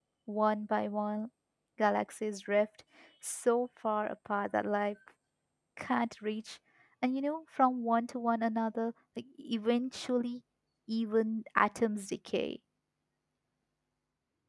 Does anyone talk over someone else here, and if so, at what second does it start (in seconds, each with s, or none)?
none